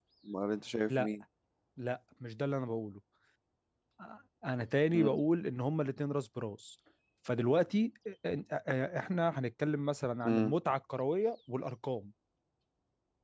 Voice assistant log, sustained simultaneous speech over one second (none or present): none